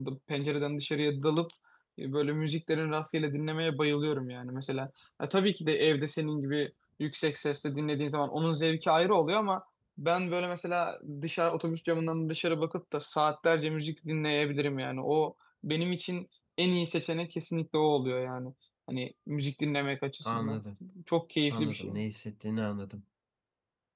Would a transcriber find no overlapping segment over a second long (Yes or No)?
Yes